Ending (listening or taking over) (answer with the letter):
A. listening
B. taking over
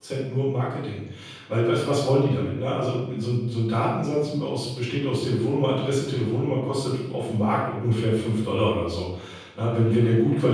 A